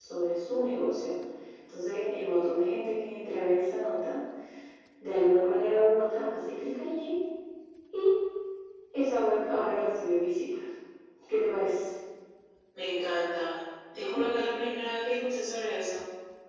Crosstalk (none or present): none